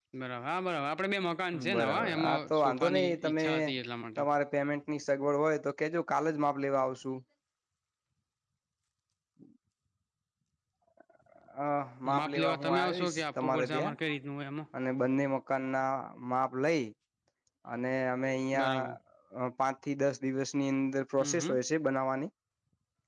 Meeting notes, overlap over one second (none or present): present